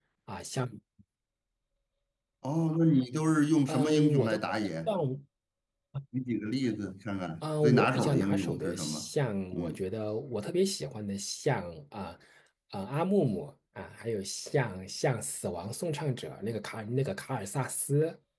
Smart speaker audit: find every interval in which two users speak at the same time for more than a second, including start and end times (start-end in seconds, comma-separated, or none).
3.7-4.9, 7.4-9.1